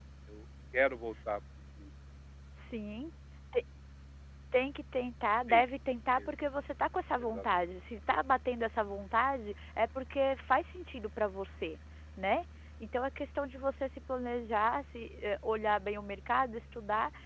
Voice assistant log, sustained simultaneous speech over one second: none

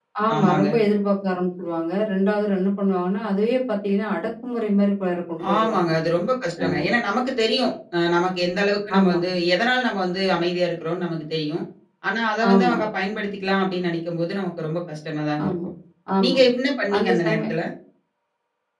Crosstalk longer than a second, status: none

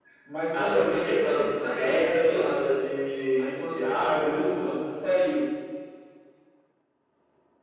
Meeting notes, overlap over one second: present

